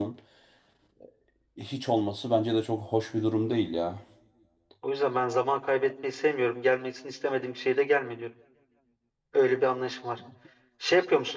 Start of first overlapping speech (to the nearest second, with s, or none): none